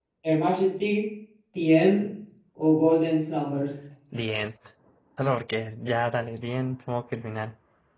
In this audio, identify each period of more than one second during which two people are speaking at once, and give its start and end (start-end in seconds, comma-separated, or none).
none